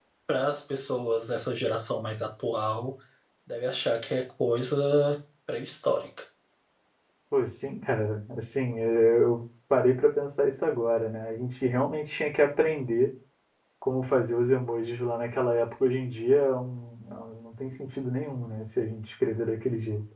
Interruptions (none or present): none